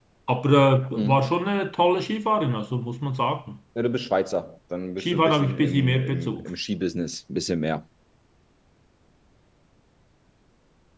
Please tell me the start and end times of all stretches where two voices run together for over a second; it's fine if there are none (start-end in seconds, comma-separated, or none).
5.0-6.4